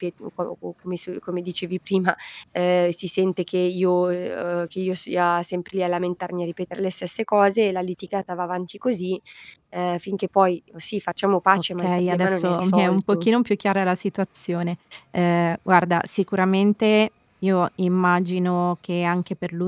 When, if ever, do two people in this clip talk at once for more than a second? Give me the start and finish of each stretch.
11.8-13.3

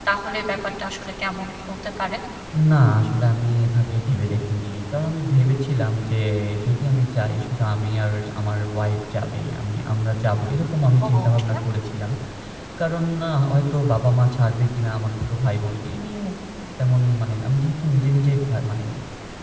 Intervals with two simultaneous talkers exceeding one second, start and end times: none

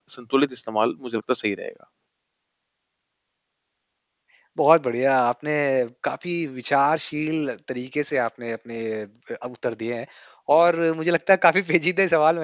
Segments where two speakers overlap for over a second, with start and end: none

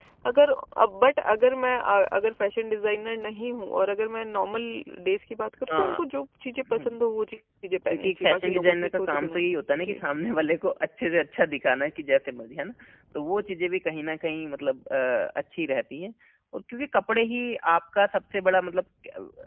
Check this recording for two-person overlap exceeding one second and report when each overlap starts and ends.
7.9-9.4

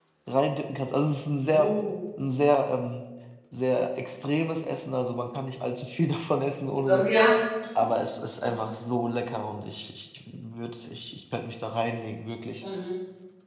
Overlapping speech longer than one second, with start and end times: none

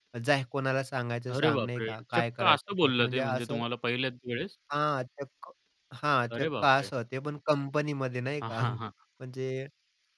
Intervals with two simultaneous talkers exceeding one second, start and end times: 1.3-3.6

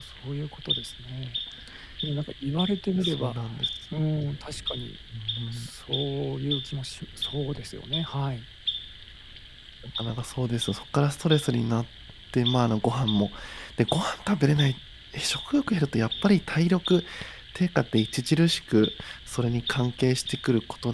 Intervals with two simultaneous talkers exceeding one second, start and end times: none

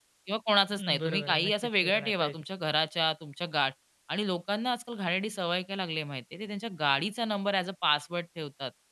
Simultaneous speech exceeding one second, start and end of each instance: 0.7-2.4

